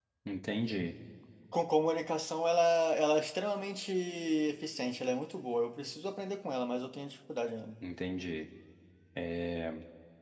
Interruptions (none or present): none